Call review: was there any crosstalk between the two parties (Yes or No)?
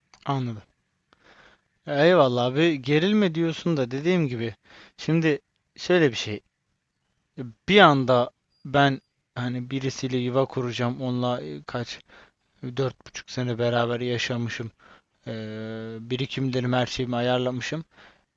No